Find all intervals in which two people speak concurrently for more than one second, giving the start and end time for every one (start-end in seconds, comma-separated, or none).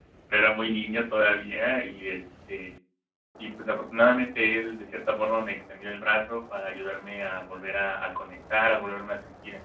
none